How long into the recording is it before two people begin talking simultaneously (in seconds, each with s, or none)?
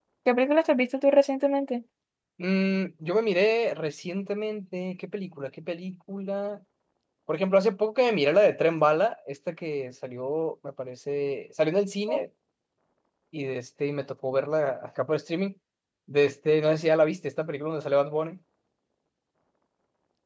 none